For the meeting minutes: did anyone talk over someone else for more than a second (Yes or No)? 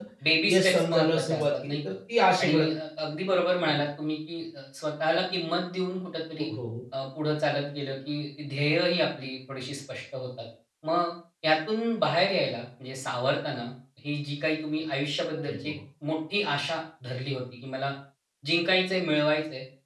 Yes